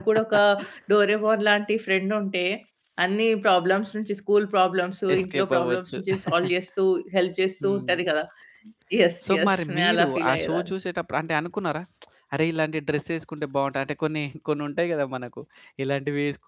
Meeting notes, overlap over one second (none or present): present